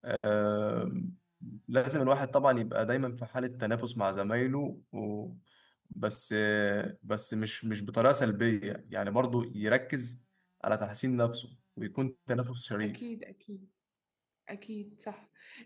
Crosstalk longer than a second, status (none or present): none